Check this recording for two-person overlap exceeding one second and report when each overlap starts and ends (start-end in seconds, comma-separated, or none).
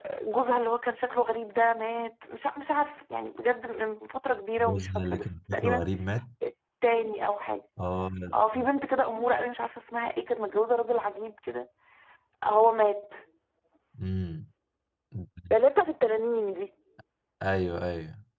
4.6-5.8